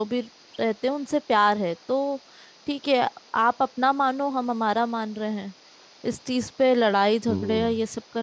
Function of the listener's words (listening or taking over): listening